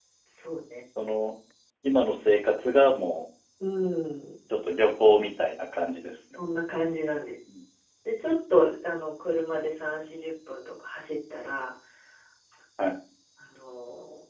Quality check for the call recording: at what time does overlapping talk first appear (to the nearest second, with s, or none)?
none